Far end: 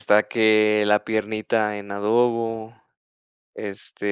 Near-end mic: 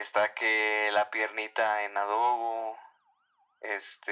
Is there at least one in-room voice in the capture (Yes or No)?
No